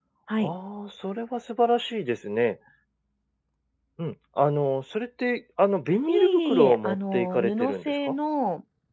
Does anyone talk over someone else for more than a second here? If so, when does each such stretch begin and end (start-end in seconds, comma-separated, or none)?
6.1-8.1